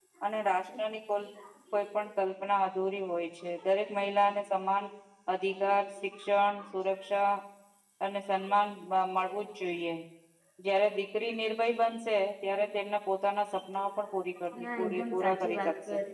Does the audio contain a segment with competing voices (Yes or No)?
Yes